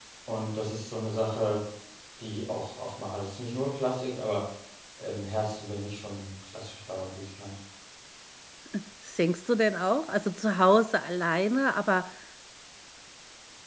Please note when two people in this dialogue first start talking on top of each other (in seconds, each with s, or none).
none